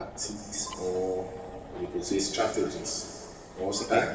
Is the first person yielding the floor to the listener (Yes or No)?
No